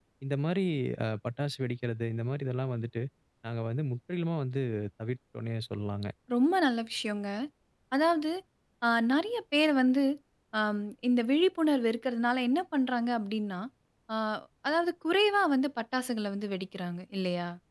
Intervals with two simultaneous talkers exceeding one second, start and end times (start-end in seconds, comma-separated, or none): none